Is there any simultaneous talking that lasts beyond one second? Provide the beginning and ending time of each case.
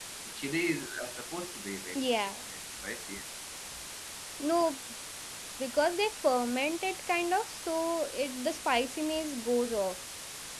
none

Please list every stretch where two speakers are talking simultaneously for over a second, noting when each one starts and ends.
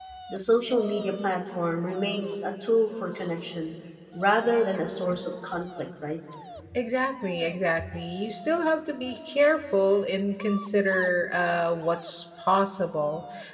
none

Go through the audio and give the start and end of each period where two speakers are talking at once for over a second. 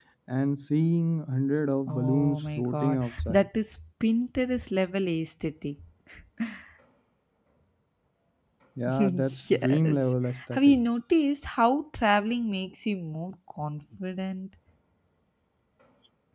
1.9-3.5, 9.0-10.8

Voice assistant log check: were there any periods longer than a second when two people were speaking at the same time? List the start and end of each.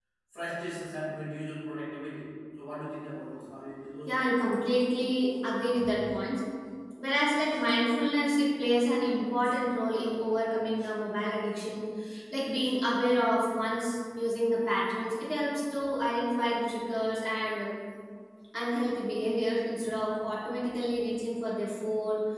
none

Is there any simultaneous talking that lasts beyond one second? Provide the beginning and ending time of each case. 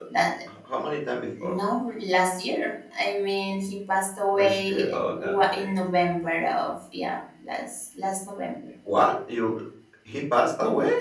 4.3-5.7

